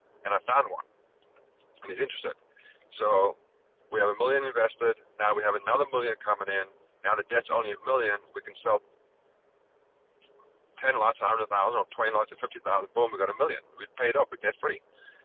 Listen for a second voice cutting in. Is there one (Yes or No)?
No